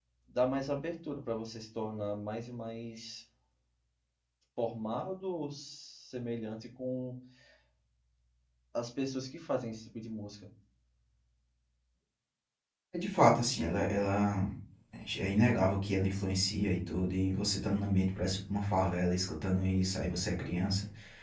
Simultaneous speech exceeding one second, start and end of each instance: none

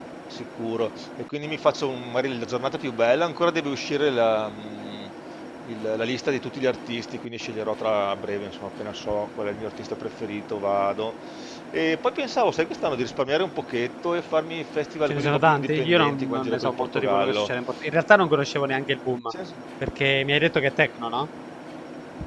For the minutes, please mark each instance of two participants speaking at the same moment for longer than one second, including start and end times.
15.1-17.5

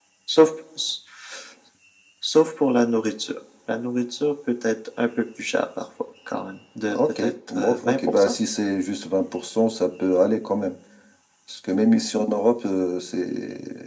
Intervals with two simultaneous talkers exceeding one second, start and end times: 6.9-8.3

